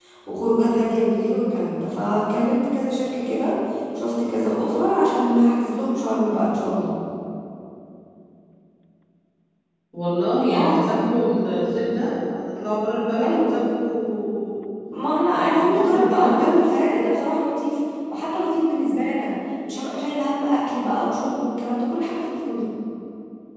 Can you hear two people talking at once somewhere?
Yes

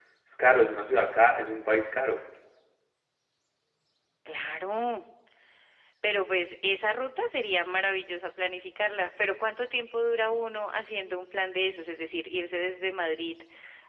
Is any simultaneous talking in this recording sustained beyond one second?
No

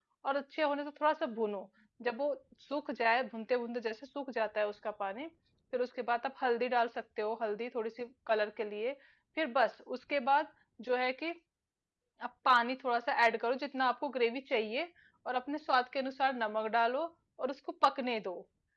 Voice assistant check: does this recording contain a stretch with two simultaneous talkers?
No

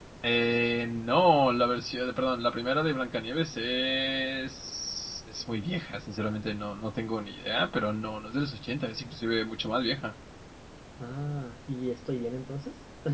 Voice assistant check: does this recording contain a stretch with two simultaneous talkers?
No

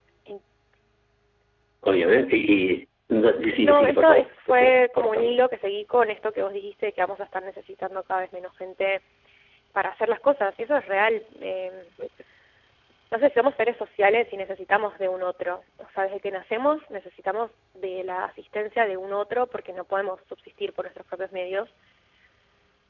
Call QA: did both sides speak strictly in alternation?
No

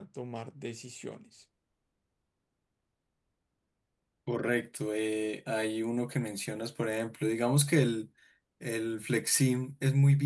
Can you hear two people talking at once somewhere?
No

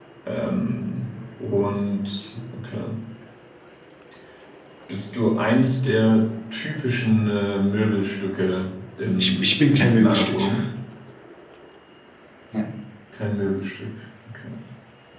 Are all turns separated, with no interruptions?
No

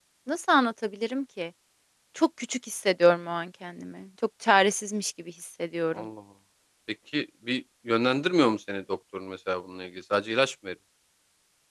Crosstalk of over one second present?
No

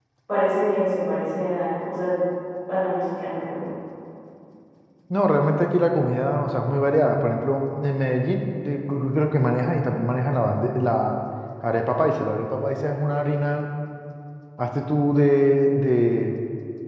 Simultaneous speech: No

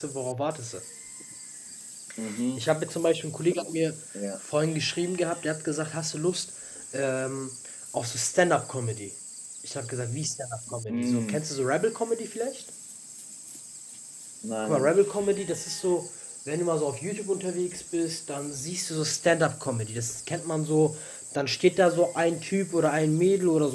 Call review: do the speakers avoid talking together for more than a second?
Yes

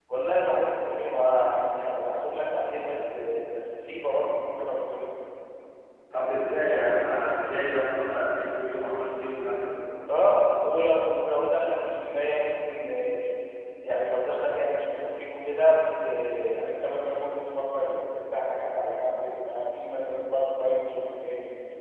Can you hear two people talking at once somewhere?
No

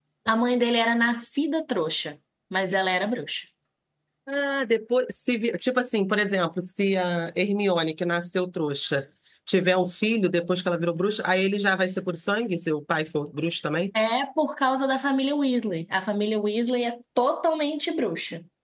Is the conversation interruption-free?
Yes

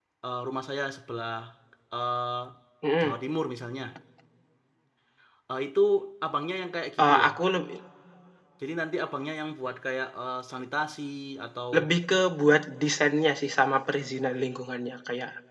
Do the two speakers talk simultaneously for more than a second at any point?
No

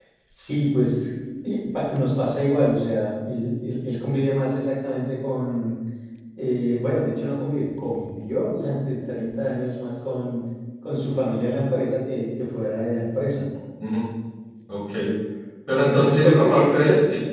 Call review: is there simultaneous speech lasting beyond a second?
Yes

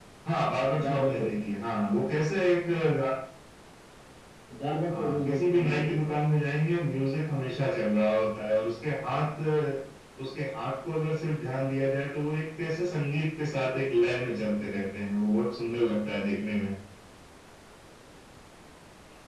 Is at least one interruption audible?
Yes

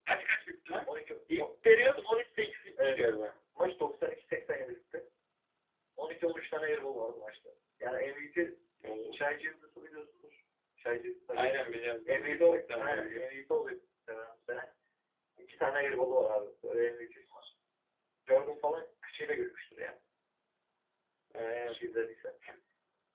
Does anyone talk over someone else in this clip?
Yes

